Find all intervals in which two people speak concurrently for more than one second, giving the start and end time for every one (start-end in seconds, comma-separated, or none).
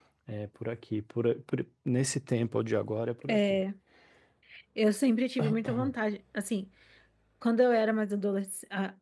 none